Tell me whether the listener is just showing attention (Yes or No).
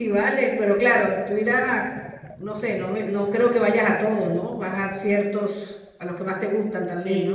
No